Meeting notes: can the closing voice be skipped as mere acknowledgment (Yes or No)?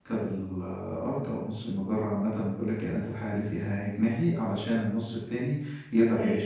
Yes